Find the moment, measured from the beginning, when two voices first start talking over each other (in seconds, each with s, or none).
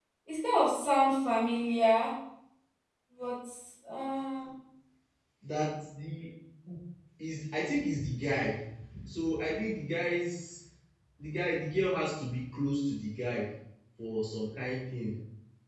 none